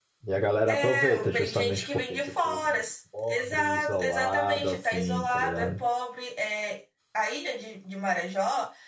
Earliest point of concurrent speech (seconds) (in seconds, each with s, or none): 0.7 s